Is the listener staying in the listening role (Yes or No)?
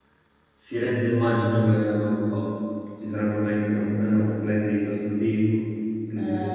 No